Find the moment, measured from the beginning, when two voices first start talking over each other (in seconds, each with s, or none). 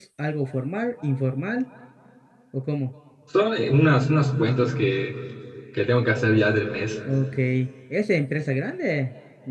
none